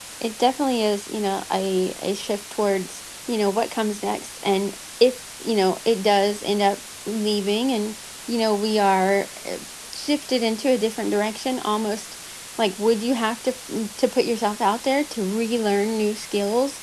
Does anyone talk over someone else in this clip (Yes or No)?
No